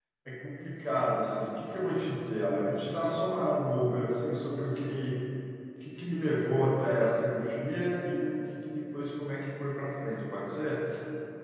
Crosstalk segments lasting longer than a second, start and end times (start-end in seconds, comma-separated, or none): none